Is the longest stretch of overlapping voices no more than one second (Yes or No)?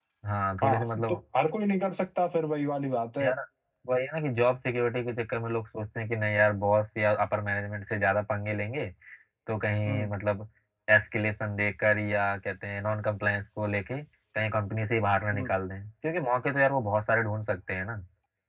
Yes